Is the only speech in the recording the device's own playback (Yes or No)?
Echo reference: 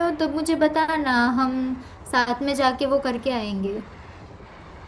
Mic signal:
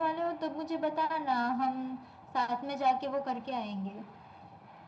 Yes